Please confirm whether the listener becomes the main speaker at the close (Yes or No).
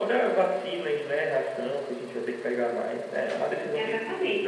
Yes